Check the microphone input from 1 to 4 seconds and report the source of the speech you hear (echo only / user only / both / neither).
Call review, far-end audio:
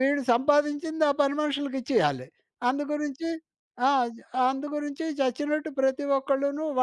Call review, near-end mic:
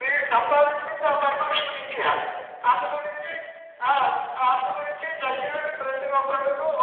echo only